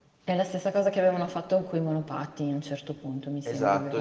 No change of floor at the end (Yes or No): No